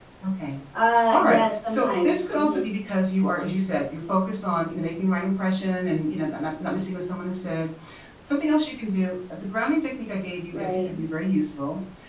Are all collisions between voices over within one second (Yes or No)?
No